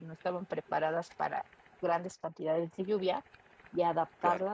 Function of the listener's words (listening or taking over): listening